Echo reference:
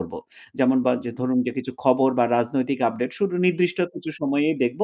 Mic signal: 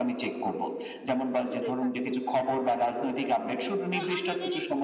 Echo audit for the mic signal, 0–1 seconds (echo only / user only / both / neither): echo only